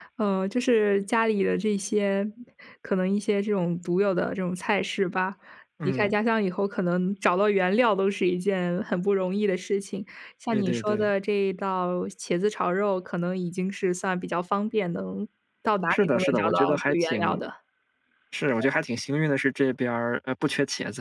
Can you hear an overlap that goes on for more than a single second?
Yes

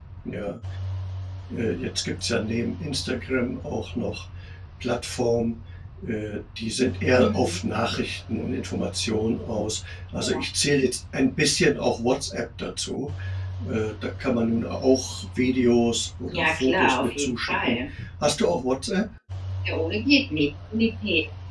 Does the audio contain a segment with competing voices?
Yes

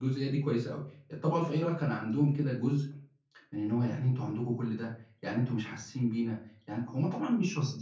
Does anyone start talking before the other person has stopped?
No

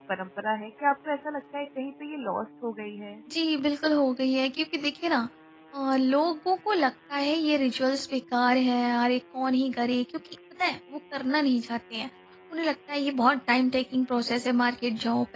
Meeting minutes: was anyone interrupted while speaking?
No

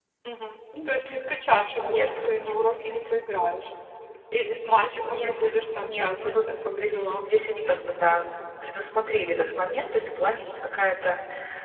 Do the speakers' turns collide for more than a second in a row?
Yes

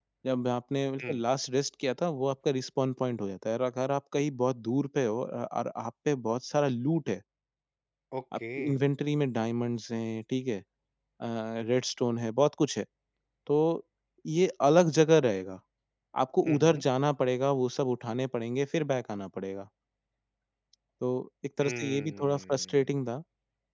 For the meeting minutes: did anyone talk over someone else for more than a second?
Yes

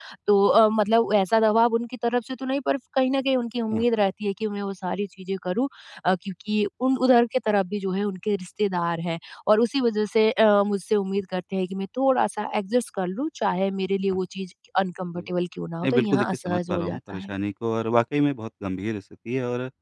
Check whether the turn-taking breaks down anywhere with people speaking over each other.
Yes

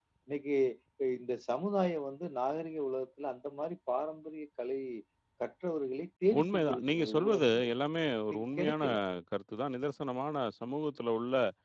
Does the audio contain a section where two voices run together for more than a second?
Yes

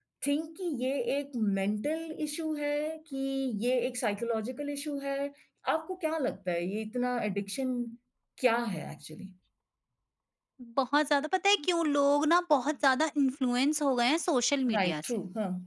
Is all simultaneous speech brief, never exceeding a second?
Yes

